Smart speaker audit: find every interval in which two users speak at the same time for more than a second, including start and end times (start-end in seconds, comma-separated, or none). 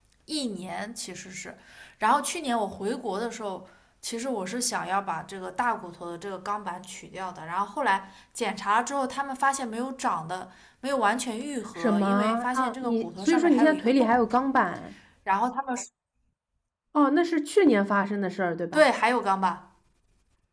11.8-14.2